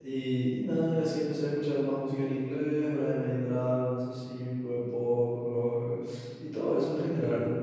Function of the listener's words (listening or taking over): listening